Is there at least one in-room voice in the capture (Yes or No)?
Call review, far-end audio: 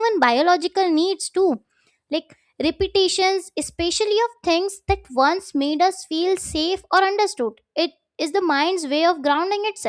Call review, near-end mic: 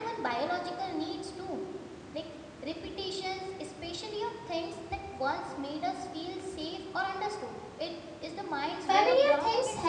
Yes